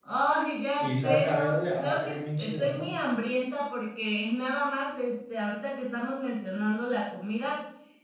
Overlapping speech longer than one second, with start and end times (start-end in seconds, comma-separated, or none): 0.8-2.9